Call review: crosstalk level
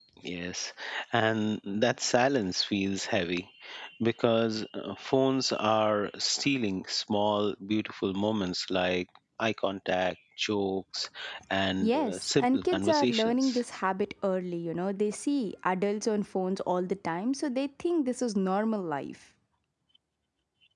present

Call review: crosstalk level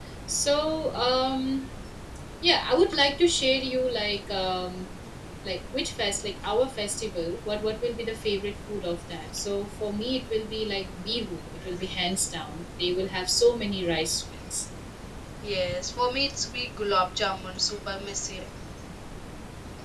none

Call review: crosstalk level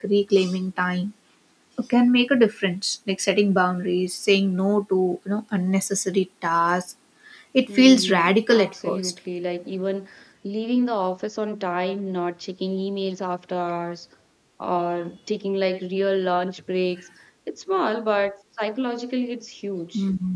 present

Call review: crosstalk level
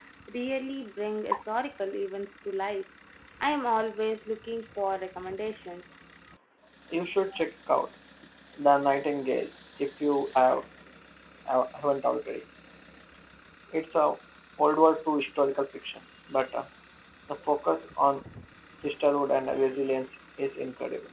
none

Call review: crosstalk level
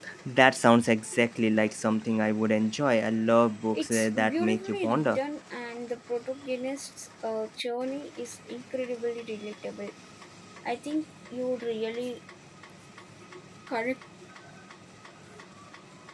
present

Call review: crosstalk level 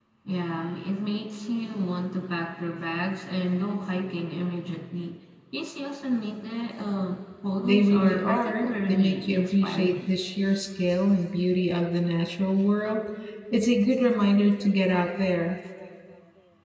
present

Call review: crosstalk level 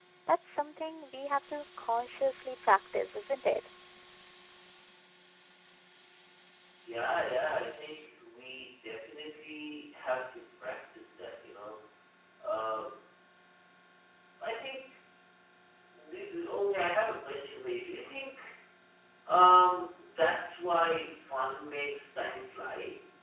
none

